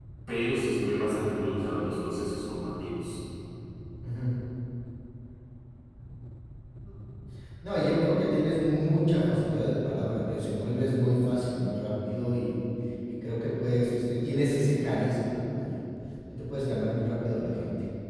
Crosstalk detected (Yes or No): No